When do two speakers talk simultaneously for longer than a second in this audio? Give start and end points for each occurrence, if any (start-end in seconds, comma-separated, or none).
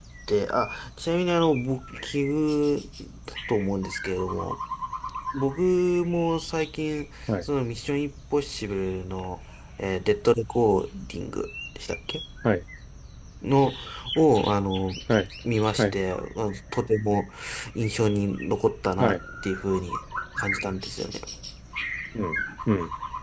none